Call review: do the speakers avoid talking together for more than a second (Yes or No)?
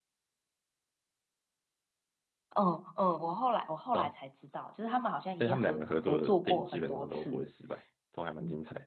No